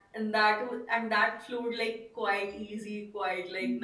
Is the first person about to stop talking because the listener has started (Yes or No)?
Yes